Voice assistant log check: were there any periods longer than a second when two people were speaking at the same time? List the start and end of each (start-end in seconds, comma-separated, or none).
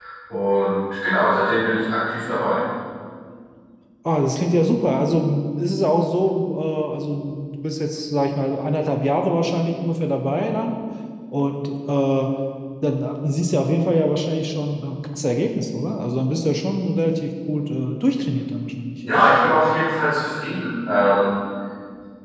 none